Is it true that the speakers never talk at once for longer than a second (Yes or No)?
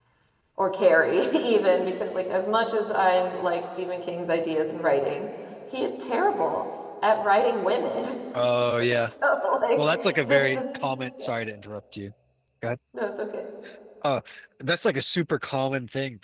Yes